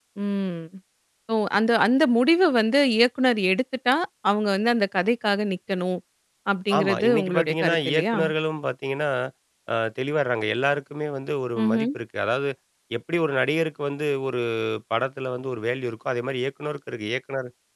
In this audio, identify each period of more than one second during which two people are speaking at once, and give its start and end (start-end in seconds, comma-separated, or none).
6.8-8.2